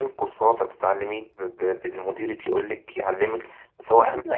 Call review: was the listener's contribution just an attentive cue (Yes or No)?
No